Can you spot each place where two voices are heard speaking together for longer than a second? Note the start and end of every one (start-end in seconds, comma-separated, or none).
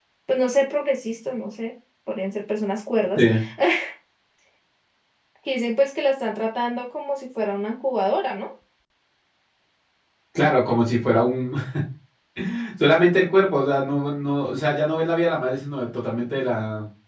none